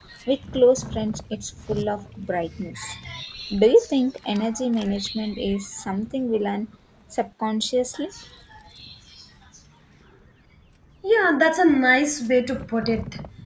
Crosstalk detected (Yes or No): No